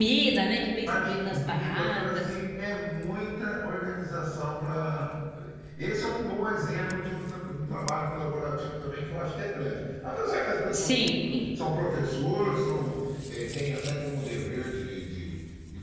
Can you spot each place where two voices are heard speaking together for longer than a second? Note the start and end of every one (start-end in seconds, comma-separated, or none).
0.9-2.3